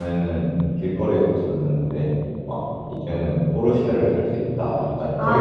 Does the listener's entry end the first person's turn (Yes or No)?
Yes